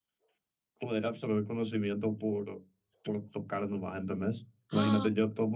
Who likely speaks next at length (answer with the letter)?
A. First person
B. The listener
A